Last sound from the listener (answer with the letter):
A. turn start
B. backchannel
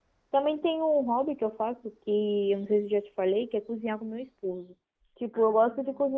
B